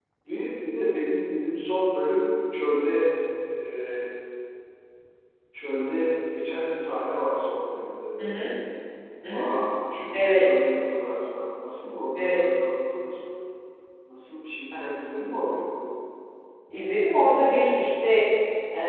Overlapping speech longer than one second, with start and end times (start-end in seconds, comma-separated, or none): none